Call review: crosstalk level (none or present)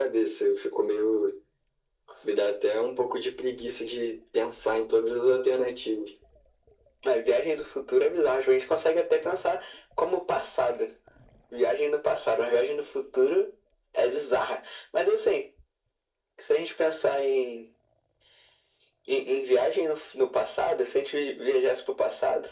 none